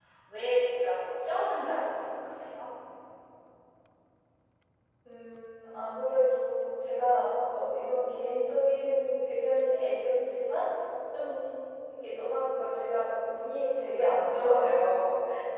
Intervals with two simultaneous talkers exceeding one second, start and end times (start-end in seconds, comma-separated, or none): none